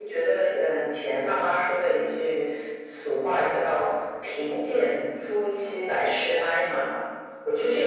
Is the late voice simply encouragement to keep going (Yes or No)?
Yes